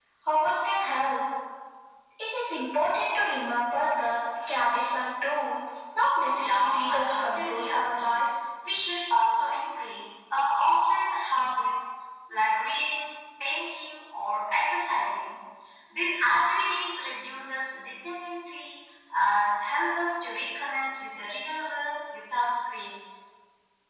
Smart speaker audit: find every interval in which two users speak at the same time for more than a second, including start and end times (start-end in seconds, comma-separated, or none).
6.4-8.3